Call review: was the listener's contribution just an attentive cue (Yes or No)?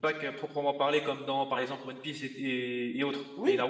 No